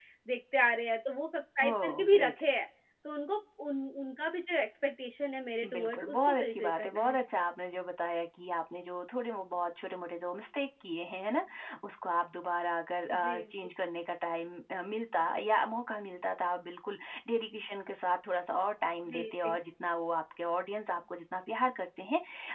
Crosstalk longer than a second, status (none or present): present